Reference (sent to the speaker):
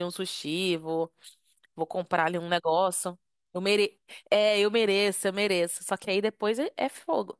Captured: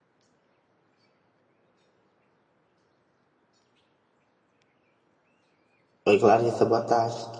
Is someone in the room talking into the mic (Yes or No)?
Yes